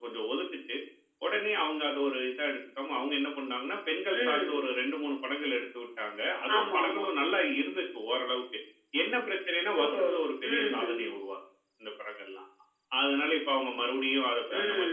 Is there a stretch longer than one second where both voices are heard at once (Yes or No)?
No